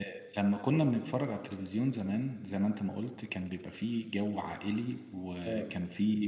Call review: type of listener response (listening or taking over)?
listening